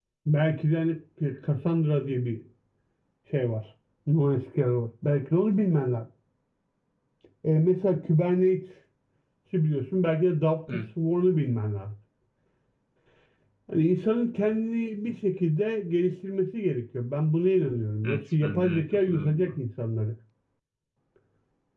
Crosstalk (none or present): present